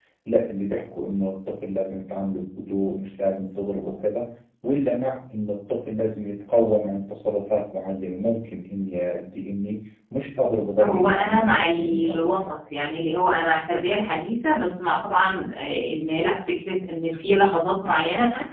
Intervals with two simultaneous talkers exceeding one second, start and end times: 10.8-12.4

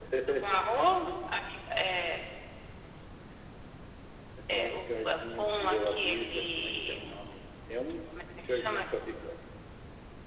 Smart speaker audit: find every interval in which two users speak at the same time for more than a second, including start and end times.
4.5-7.1

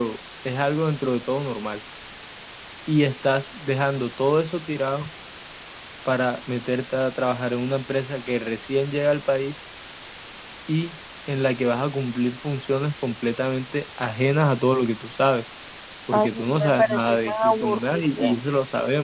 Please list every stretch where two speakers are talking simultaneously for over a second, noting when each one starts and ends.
16.1-18.3

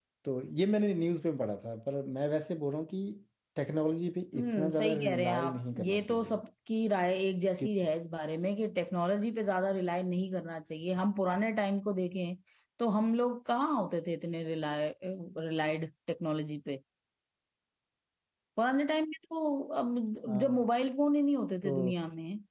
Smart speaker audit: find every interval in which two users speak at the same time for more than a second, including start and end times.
4.4-6.4

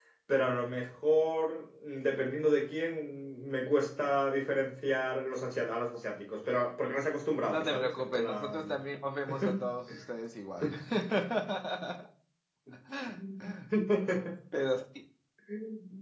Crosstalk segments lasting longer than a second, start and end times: 7.5-8.8

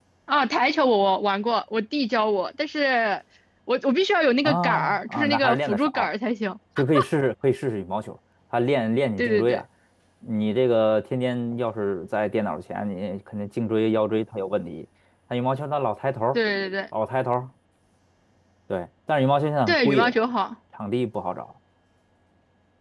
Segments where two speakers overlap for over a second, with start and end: 4.4-6.1

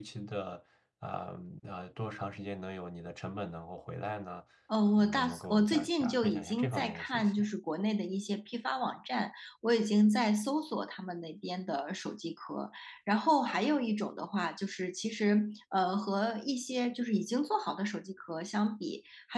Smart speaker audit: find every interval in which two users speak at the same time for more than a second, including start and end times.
5.0-7.4

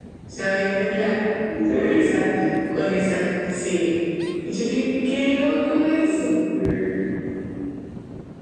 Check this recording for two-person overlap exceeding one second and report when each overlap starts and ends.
none

